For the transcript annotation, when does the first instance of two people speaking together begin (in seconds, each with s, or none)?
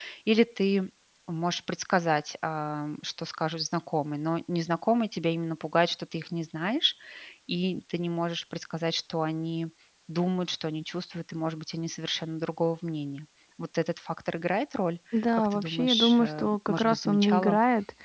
15.1 s